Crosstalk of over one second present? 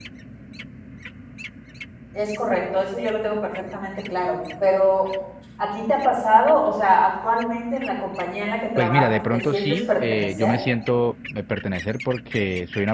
Yes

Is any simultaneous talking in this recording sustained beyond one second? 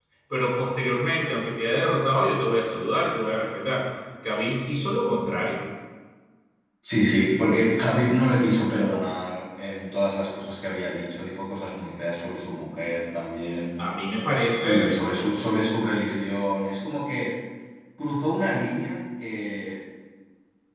No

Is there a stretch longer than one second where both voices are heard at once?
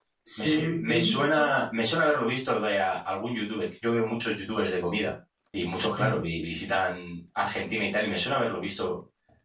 Yes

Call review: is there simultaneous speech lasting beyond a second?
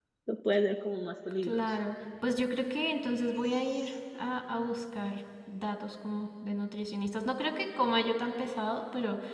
No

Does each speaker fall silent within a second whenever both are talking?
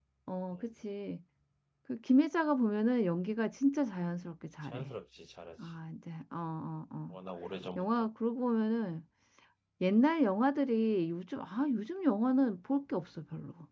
Yes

